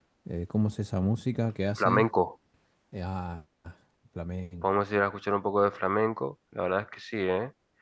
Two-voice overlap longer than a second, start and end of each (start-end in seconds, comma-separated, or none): none